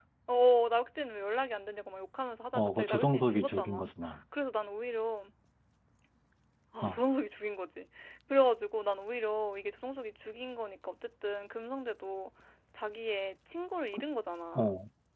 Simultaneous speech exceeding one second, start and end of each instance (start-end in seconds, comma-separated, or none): 2.5-3.9